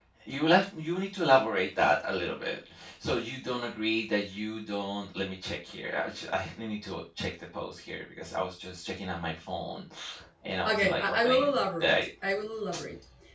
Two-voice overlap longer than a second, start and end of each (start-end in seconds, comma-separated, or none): 10.7-11.9